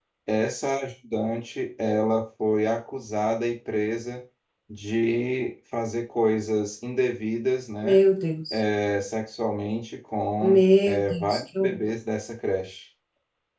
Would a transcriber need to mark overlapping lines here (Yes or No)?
Yes